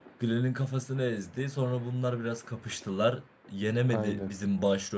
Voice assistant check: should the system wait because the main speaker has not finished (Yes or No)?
Yes